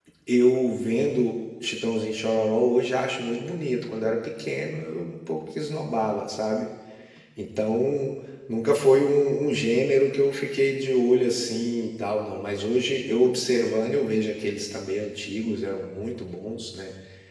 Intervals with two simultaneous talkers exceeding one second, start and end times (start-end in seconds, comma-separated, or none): none